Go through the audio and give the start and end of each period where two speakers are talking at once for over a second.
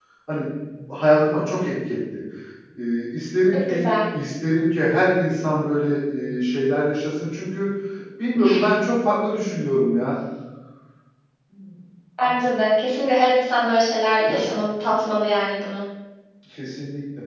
none

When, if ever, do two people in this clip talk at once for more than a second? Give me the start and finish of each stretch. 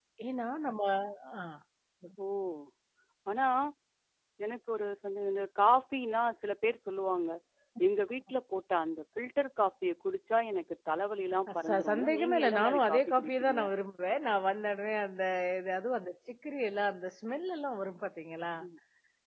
11.7-13.6

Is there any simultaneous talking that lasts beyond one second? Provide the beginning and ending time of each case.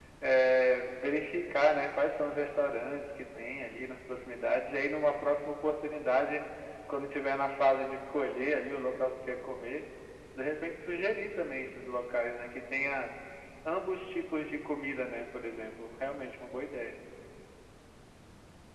none

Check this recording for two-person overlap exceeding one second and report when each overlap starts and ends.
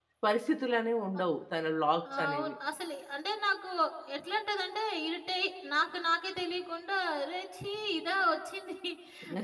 none

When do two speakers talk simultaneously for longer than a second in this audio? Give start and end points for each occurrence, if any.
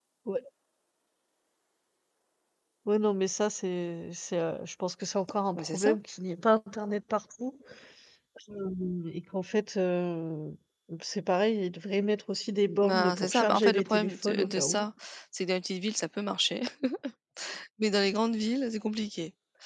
12.8-14.8

